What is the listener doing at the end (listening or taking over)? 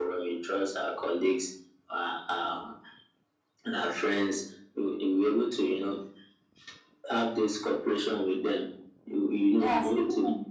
taking over